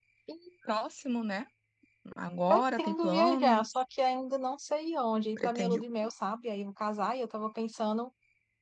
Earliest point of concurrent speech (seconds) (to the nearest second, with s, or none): 2 s